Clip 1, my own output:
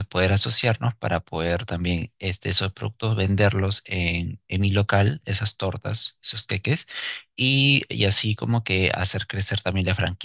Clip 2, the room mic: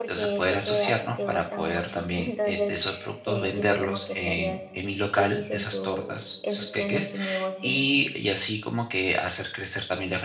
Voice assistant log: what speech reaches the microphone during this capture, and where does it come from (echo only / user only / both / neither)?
both